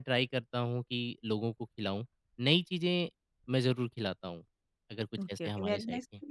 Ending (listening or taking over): taking over